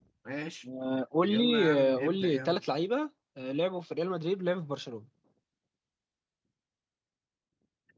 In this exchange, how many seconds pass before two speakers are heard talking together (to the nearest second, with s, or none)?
1 s